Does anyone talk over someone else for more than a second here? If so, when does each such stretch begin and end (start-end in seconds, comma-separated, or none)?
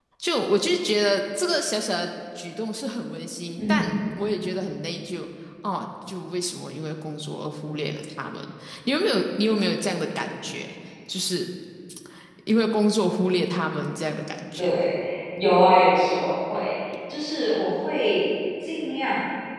none